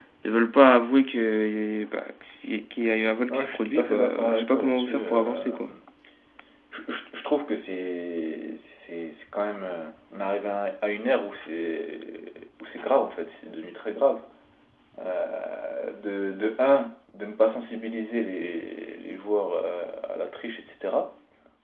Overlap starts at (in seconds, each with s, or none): 3.3 s